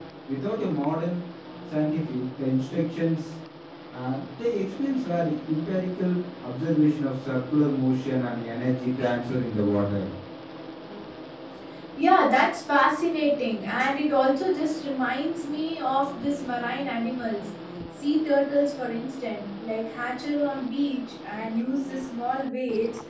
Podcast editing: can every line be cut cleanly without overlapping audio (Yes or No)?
Yes